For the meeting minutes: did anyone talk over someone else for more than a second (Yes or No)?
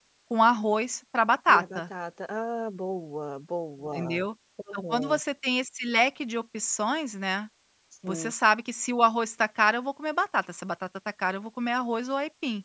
No